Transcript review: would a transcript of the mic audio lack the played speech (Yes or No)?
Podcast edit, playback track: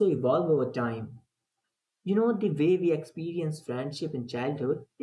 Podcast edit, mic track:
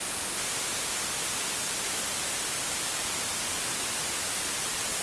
Yes